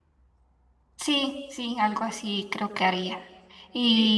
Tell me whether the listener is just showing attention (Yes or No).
Yes